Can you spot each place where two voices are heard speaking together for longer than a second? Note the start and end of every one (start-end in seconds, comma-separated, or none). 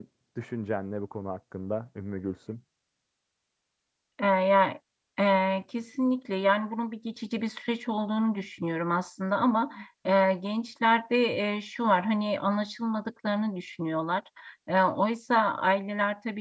none